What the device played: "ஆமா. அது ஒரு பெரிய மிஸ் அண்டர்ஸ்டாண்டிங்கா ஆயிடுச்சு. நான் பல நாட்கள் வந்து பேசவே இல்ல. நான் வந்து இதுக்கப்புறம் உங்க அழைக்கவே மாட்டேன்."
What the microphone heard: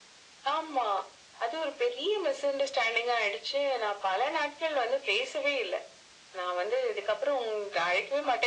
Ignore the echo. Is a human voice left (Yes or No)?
No